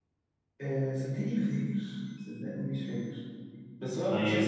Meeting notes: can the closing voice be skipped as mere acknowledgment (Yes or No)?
Yes